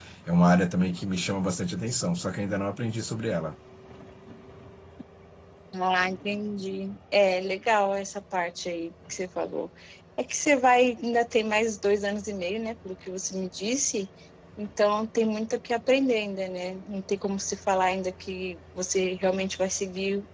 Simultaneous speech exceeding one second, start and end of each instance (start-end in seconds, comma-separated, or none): none